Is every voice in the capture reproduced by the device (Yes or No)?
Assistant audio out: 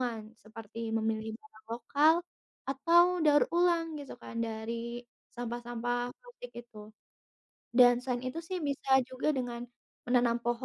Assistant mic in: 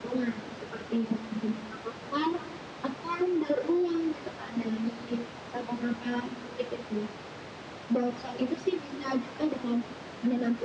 Yes